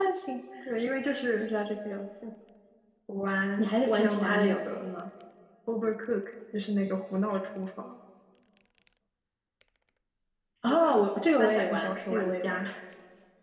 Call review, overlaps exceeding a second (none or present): present